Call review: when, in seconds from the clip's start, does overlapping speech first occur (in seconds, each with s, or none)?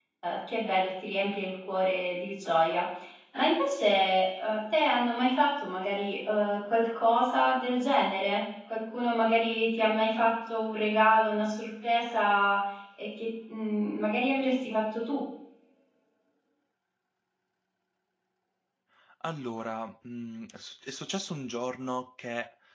none